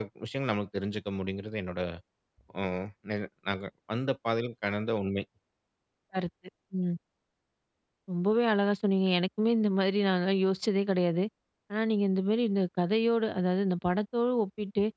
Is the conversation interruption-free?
Yes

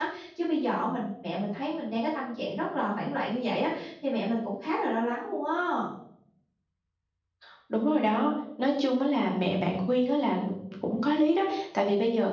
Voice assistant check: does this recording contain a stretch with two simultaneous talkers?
No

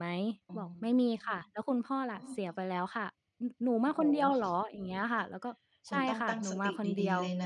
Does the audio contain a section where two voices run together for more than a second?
Yes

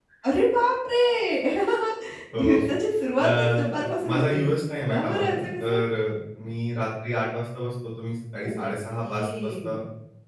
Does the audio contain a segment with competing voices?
Yes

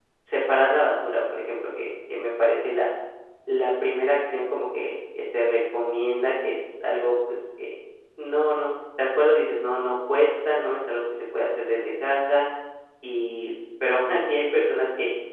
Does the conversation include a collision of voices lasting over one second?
No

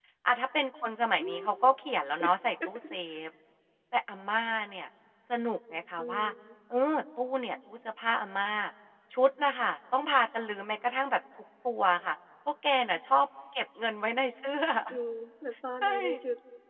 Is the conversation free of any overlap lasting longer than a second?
Yes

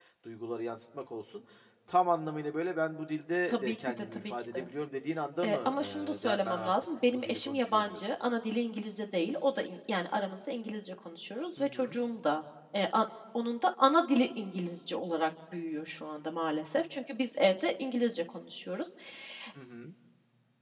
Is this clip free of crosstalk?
No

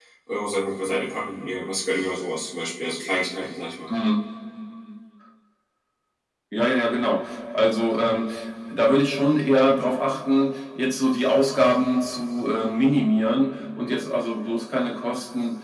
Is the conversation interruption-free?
Yes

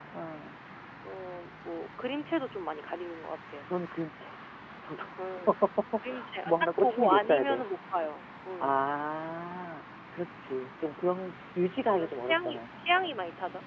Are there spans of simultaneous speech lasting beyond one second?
Yes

